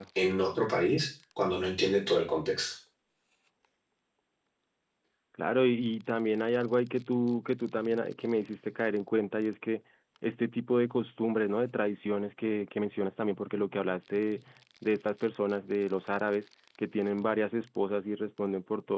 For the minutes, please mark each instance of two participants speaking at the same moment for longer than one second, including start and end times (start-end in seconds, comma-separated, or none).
none